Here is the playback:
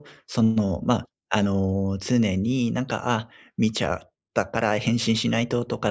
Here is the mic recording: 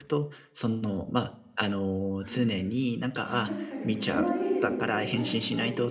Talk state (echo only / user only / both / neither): both